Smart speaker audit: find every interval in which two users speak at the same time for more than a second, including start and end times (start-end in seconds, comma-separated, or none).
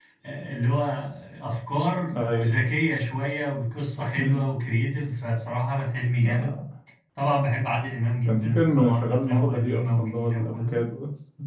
8.2-10.8